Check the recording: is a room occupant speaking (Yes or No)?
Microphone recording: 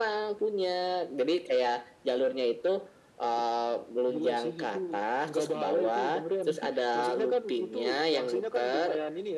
No